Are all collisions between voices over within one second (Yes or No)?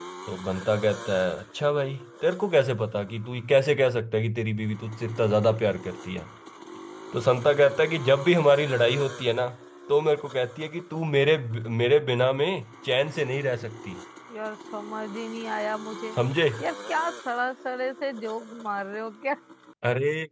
Yes